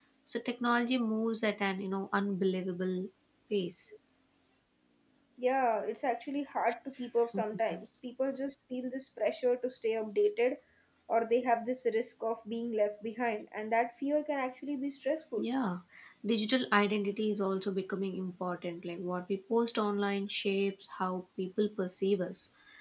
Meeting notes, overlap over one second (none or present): none